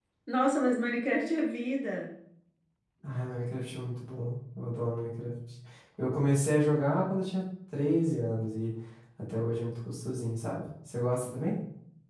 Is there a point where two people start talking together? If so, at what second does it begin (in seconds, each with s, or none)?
none